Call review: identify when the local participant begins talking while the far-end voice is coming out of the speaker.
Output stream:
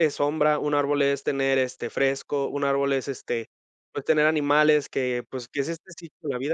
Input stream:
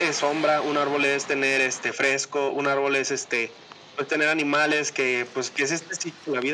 none

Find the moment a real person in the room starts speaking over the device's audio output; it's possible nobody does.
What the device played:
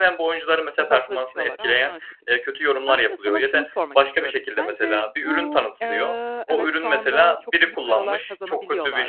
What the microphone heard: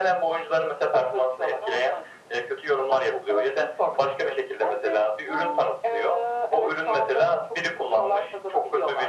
none

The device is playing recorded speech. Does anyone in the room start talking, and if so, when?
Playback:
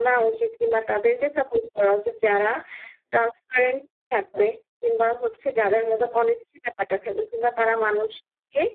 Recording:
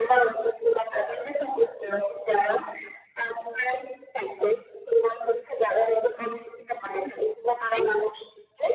7.0 s

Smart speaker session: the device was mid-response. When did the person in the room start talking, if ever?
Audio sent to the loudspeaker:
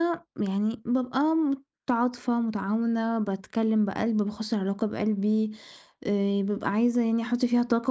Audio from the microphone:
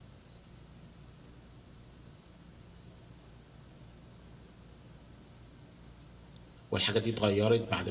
6.7 s

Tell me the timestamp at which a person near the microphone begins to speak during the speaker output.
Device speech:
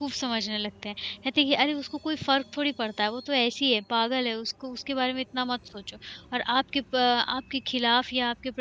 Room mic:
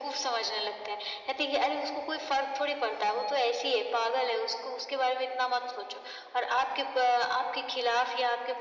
none

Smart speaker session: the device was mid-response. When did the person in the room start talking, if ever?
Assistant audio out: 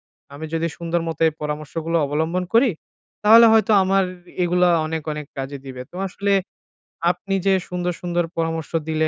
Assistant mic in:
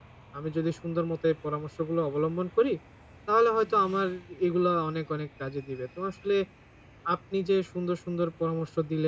none

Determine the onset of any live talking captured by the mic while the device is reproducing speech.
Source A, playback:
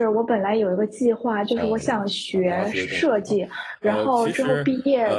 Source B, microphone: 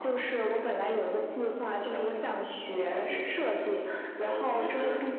none

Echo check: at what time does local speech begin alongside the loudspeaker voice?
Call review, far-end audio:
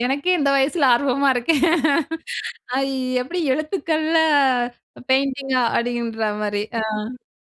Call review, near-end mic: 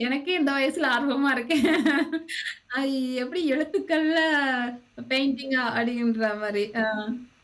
none

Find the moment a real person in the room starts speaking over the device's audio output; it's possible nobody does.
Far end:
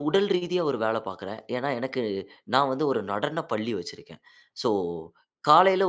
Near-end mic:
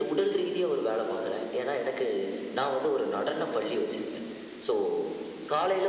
none

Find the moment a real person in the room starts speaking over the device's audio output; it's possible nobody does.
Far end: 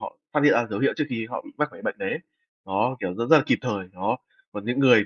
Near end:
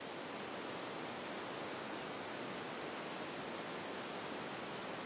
none

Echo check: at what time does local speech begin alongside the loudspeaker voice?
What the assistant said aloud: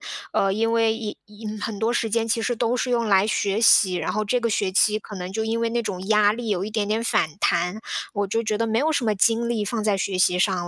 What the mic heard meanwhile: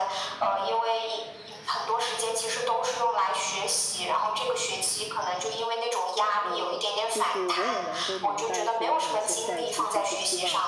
6.4 s

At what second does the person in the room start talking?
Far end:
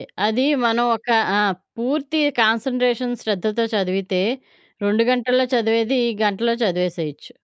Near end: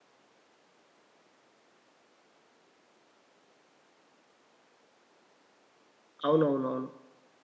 6.3 s

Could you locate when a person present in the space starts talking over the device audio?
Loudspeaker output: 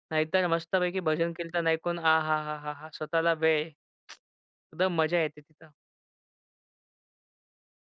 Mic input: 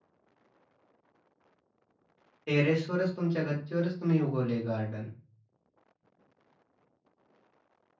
2.5 s

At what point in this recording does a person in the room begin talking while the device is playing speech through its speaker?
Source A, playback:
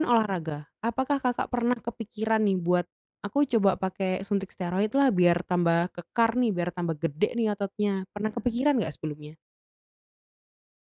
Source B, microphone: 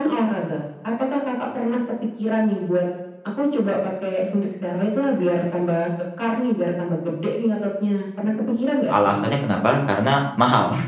8.9 s

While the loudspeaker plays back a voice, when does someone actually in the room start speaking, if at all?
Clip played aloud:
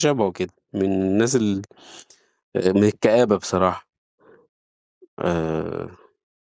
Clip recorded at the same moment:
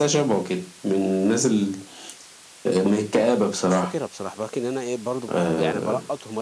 3.2 s

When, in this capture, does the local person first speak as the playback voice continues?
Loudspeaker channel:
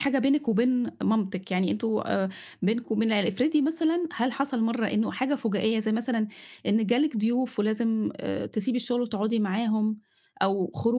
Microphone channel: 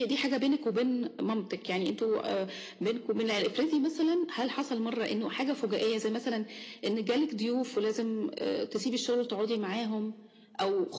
none

